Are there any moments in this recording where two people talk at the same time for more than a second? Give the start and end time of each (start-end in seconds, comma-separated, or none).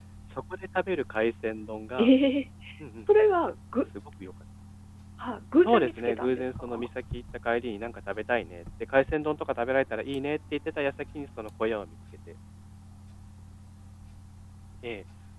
5.6-6.9